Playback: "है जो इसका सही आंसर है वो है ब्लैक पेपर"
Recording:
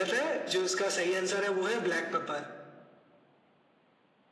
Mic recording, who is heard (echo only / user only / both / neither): echo only